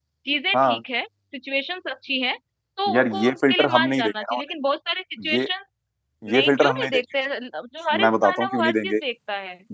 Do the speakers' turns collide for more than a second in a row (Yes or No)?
Yes